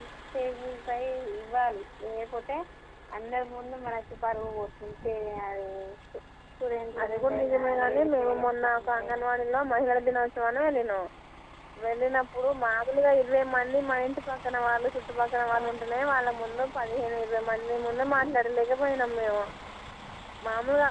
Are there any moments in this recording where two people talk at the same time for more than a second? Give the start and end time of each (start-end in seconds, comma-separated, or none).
7.0-9.2